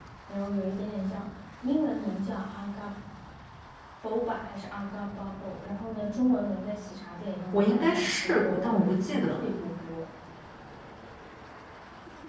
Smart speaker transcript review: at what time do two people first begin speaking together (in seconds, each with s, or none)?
7.5 s